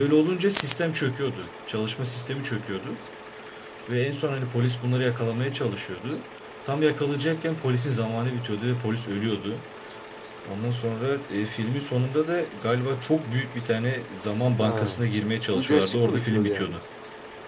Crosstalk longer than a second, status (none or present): present